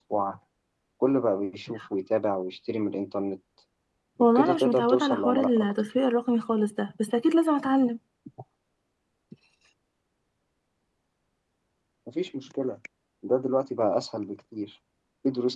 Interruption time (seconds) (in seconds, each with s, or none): 4.2 s